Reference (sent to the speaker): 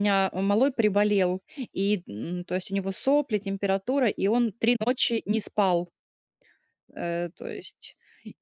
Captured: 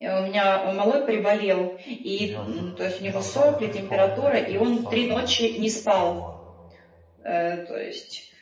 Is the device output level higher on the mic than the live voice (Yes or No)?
Yes